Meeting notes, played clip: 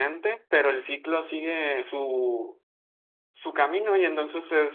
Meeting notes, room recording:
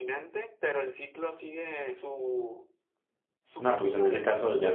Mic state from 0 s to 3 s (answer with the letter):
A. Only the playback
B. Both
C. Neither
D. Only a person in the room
A